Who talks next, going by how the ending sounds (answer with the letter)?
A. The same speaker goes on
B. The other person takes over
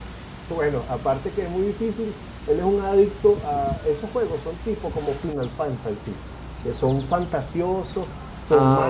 A